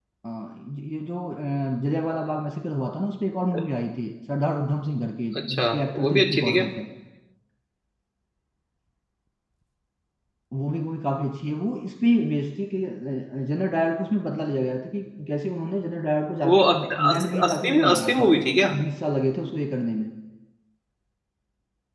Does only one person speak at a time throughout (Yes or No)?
No